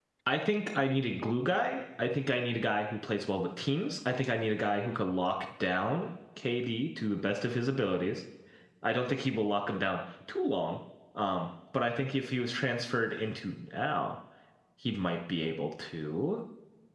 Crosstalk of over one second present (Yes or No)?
No